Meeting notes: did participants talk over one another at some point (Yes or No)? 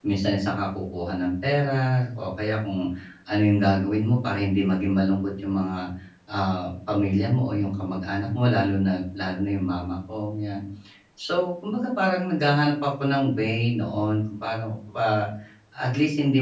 No